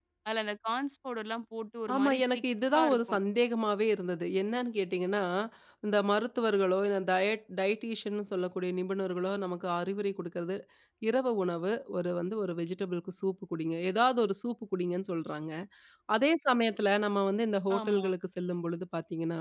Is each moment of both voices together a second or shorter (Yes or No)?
No